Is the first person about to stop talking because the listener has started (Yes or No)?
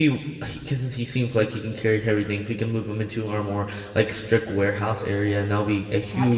No